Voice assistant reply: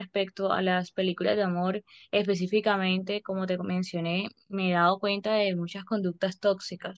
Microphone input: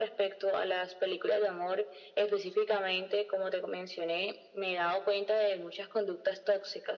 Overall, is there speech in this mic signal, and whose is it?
echo only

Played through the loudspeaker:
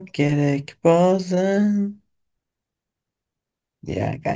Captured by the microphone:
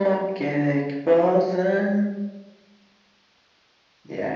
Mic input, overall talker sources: echo only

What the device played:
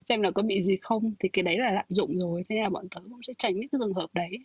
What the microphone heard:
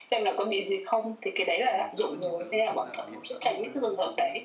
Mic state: both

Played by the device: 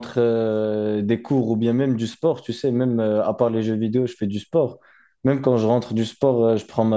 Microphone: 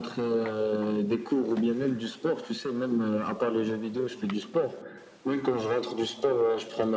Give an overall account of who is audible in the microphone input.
echo only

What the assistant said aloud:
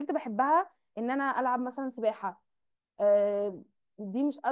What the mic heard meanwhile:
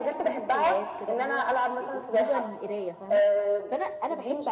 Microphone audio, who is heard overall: both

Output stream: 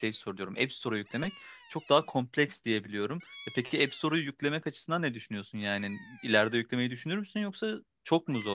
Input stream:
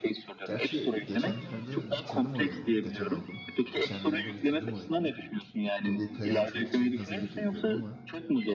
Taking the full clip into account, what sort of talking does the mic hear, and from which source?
both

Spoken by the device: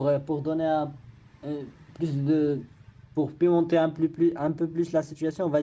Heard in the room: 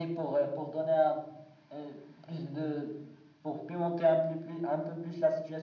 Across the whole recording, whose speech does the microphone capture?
echo only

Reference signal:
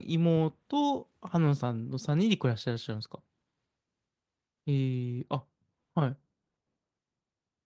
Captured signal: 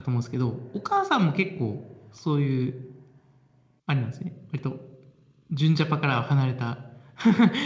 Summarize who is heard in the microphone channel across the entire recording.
user only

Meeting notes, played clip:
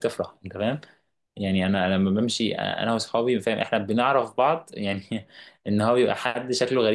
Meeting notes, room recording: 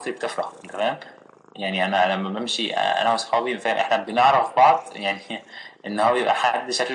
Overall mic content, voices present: echo only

